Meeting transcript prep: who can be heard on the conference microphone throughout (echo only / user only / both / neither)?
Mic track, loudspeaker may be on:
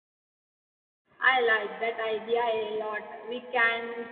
user only